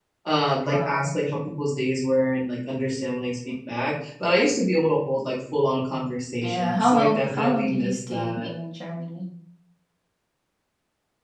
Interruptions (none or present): present